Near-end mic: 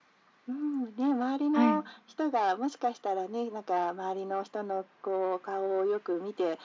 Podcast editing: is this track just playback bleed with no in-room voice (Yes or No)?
No